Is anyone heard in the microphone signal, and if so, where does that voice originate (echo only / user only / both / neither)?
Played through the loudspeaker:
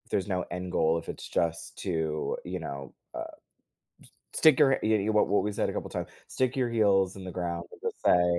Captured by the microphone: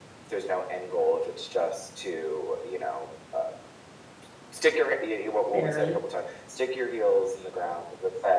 both